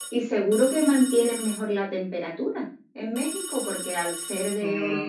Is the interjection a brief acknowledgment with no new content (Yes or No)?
No